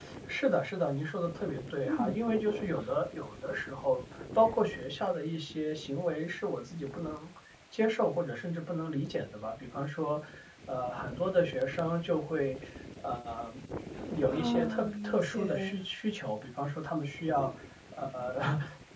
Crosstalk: present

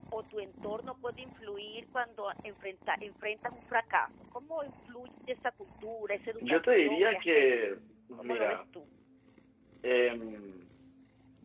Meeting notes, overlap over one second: present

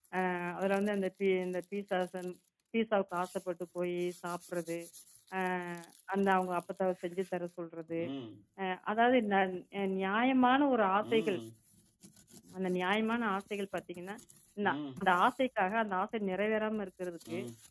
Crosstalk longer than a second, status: none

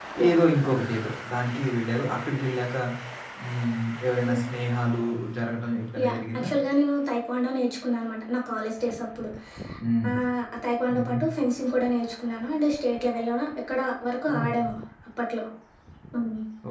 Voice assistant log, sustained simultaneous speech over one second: none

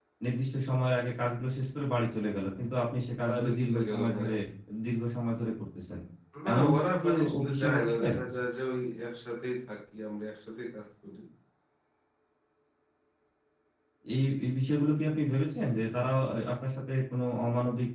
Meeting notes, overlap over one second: present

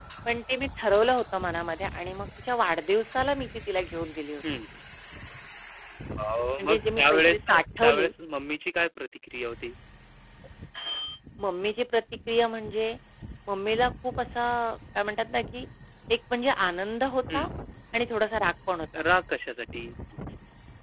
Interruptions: present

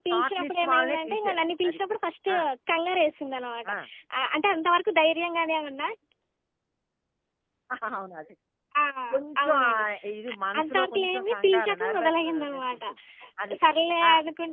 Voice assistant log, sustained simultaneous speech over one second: present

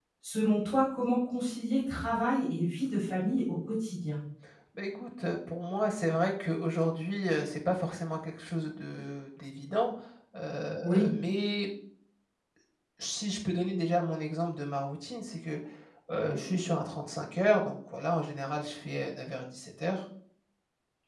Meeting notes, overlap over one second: none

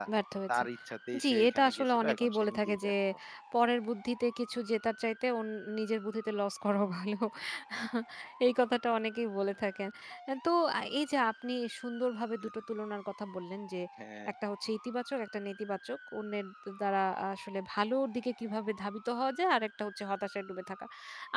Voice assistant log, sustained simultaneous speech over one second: present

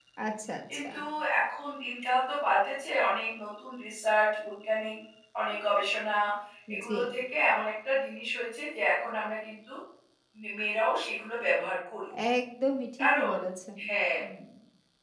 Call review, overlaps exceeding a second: none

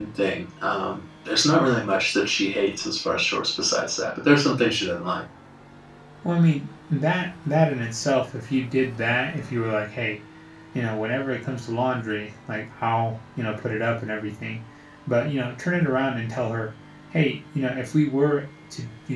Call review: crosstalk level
none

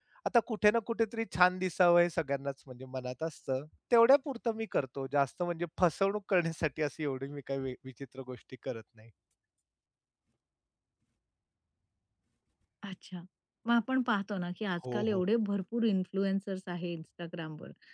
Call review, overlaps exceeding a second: none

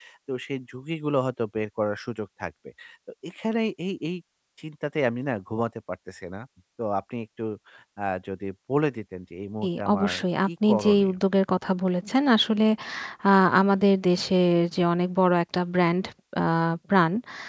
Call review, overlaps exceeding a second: present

